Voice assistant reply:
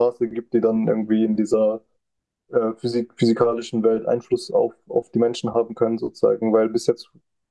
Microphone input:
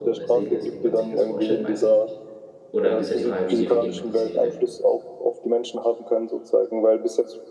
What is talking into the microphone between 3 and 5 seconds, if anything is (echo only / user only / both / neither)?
both